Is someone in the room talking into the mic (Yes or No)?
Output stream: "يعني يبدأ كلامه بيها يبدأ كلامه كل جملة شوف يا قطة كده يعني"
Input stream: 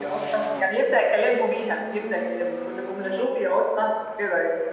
No